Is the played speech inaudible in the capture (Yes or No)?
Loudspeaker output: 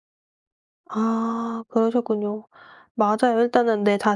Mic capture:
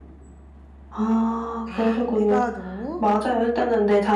No